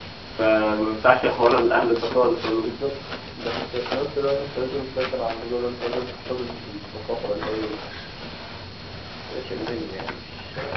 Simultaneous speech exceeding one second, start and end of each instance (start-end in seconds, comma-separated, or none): none